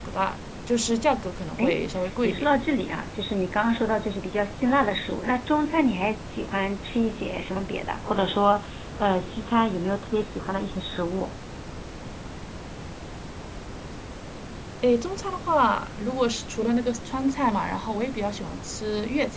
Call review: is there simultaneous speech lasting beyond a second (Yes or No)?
No